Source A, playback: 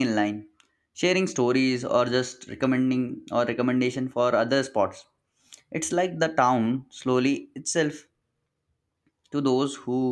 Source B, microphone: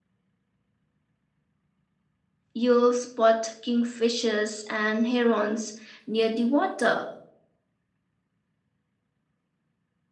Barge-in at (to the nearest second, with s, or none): 3 s